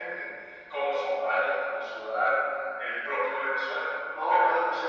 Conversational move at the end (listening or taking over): taking over